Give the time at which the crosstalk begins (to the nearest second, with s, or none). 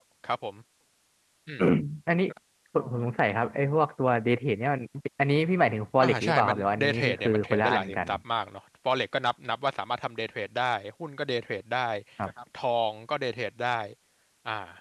6 s